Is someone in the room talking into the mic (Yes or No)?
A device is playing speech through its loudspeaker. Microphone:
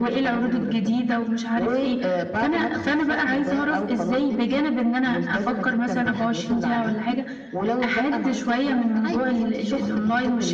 No